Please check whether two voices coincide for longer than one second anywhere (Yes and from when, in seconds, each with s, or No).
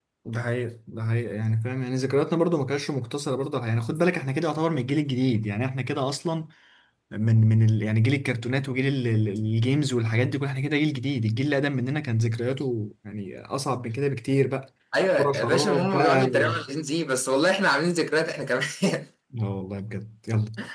Yes, from 15.2 s